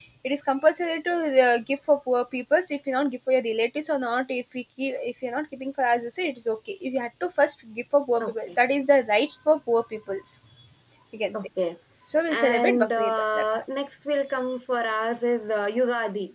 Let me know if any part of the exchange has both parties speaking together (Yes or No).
Yes